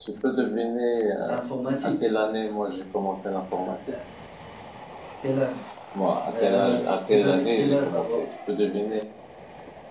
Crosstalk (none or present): present